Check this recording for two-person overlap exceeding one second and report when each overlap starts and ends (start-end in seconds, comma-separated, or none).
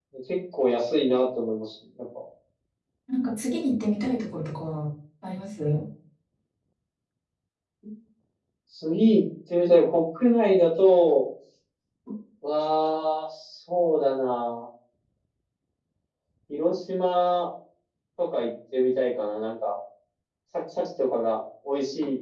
none